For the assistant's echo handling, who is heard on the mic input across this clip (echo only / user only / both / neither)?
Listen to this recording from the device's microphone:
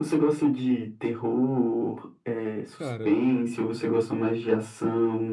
both